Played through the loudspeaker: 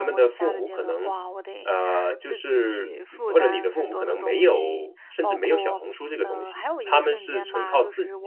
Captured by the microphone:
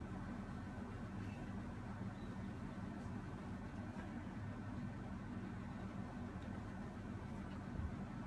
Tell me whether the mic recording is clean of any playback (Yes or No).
Yes